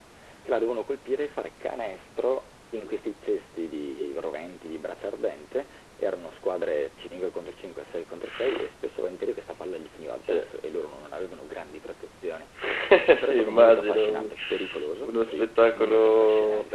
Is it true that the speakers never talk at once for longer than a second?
No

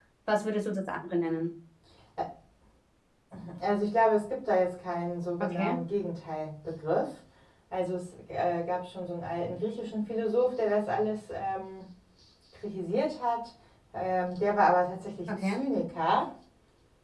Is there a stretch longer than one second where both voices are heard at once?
No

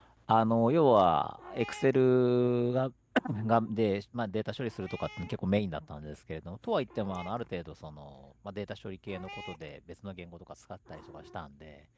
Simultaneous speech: No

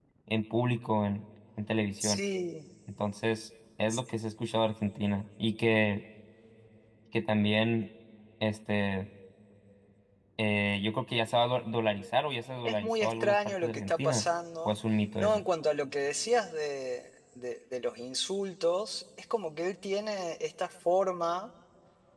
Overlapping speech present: Yes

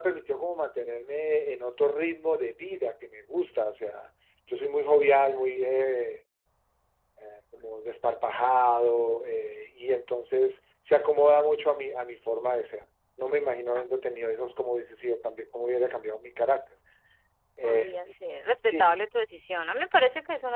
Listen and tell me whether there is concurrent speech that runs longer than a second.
No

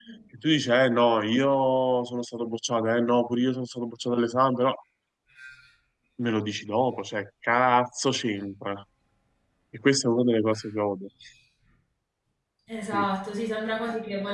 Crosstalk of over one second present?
No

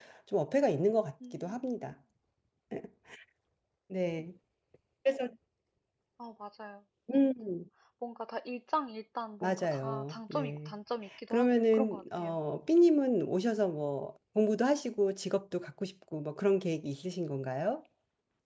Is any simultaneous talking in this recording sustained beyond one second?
Yes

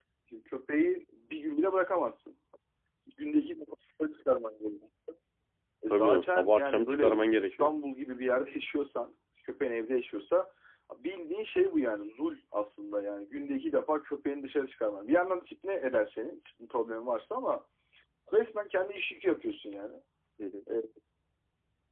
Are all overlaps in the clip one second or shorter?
No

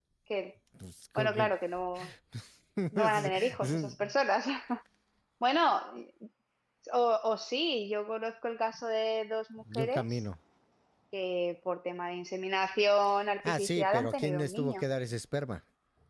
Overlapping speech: Yes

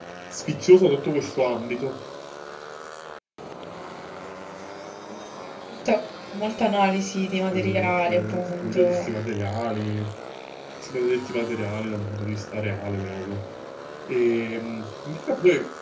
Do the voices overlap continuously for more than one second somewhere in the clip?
Yes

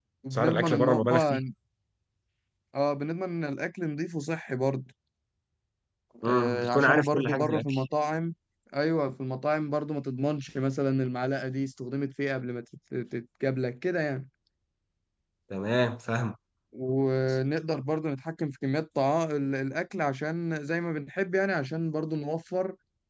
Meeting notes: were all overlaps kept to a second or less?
No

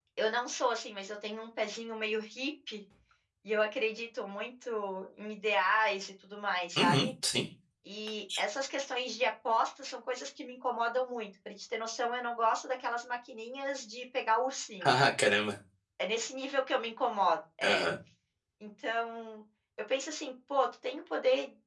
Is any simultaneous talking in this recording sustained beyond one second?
No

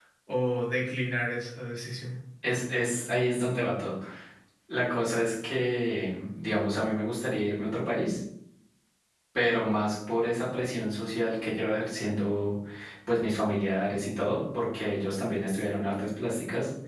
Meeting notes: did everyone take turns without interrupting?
Yes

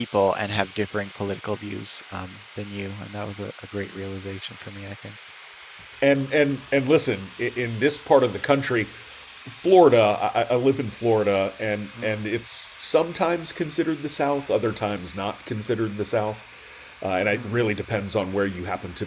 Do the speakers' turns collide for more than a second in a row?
No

